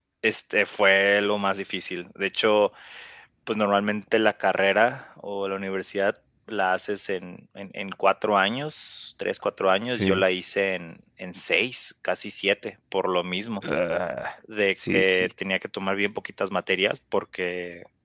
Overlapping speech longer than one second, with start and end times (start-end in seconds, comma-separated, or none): none